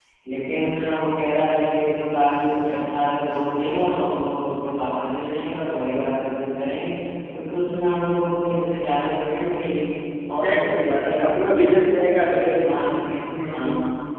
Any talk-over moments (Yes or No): Yes